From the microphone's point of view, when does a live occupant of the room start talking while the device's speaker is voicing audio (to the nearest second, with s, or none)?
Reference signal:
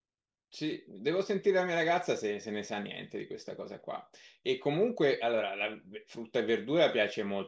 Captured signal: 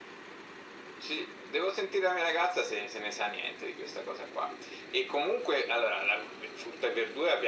none